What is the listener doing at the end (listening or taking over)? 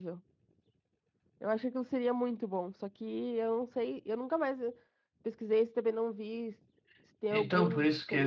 taking over